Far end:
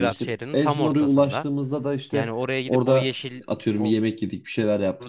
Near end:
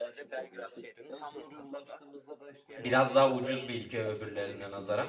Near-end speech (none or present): present